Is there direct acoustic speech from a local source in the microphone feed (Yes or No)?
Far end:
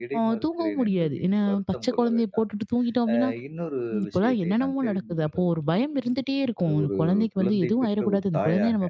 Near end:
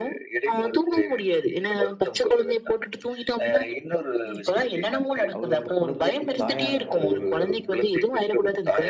Yes